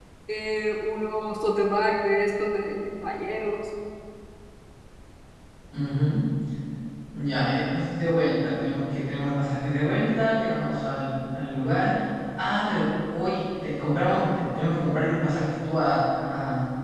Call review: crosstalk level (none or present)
none